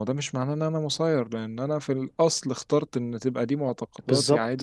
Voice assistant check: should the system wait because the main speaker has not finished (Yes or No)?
Yes